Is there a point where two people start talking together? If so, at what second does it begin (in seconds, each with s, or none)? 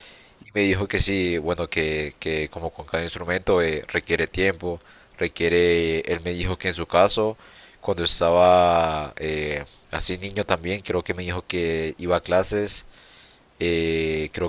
none